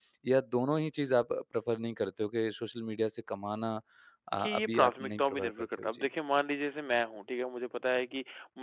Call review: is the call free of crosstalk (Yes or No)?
No